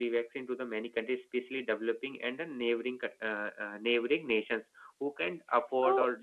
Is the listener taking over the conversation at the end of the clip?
Yes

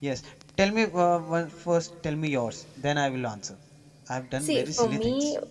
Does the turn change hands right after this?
Yes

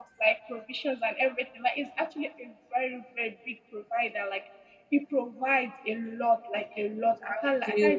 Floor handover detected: No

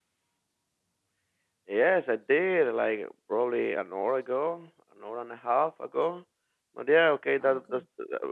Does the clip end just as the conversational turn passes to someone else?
No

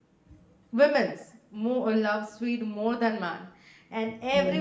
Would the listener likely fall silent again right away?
Yes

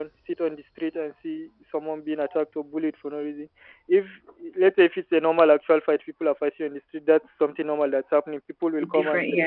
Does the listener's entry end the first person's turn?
No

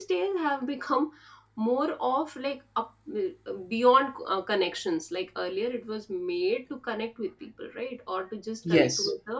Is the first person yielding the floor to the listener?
No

